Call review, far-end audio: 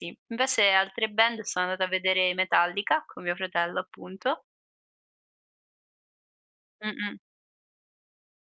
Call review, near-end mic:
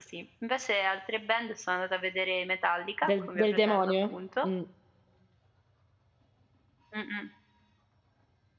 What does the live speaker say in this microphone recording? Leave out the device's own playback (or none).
Del del demonio? Mh.